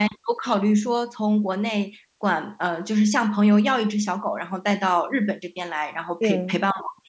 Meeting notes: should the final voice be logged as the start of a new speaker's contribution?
No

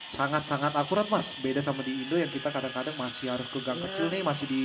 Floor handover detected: No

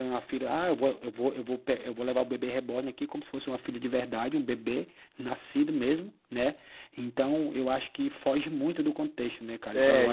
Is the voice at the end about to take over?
Yes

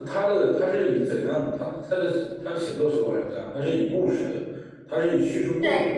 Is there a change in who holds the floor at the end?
No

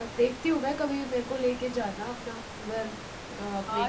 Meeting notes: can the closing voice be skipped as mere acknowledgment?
No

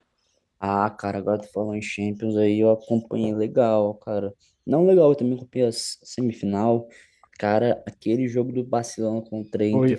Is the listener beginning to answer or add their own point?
Yes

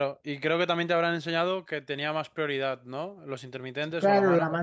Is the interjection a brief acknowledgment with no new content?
No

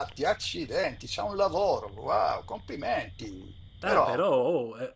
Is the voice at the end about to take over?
Yes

